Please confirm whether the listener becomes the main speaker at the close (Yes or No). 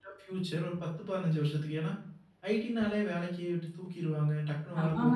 Yes